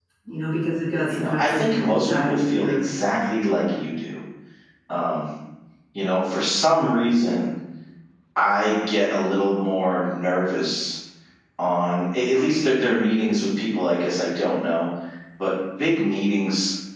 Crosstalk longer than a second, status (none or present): present